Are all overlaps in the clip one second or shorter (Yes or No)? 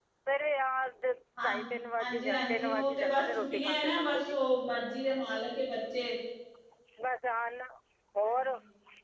No